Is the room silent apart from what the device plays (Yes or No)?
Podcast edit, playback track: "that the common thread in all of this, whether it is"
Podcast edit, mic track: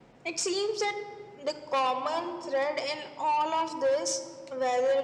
Yes